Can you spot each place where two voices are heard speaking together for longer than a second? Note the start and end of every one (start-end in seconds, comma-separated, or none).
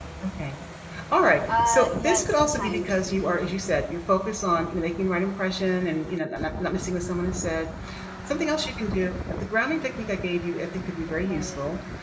1.6-3.4